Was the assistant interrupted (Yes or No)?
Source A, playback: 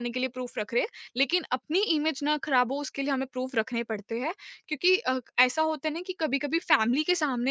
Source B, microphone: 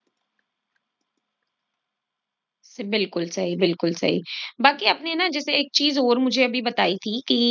Yes